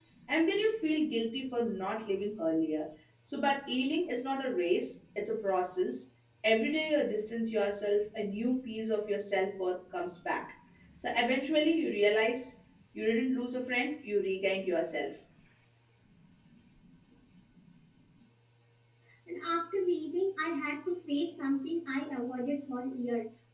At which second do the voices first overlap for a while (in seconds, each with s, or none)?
none